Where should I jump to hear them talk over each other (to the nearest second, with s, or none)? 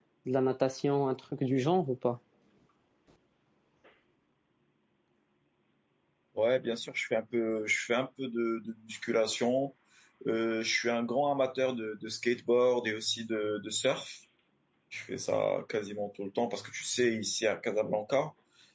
none